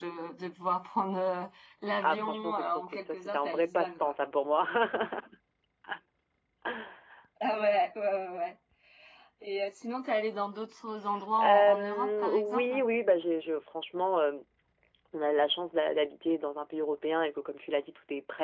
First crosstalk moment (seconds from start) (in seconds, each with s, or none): 2.0 s